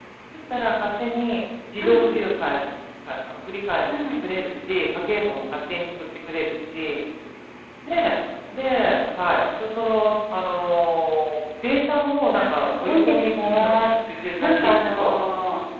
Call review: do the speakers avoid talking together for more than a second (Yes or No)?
No